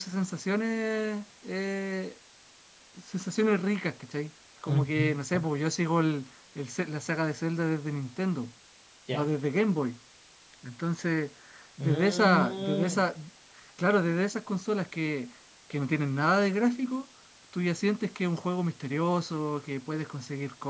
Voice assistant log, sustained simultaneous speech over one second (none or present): present